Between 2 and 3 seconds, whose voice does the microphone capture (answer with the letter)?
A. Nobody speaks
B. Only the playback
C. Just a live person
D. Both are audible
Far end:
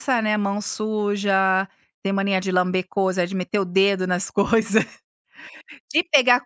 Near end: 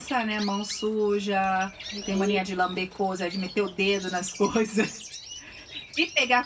D